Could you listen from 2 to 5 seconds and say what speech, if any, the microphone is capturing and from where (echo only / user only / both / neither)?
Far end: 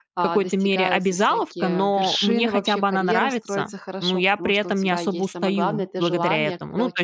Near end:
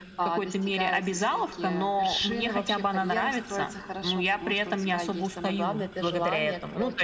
echo only